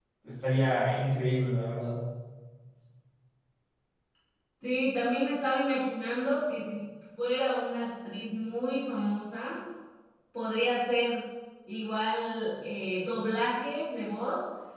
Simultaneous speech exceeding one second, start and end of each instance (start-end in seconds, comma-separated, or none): none